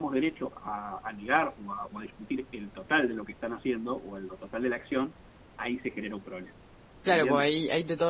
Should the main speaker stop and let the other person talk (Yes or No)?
Yes